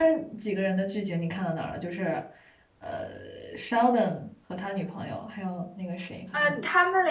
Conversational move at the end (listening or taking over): taking over